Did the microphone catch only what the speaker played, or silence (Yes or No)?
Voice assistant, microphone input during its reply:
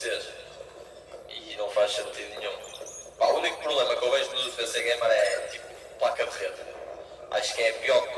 No